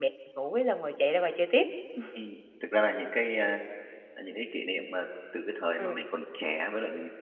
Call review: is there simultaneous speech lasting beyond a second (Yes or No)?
No